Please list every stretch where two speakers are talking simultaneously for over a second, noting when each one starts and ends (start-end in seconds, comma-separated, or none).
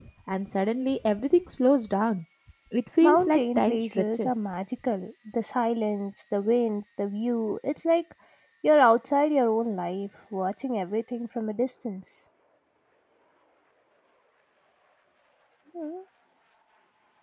3.0-4.3